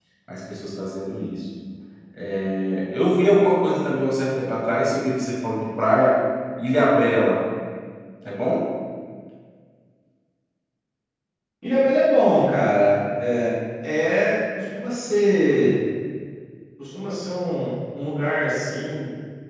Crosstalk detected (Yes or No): No